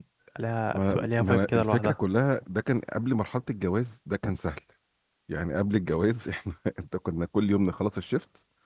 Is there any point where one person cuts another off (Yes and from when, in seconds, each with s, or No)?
Yes, from 0.7 s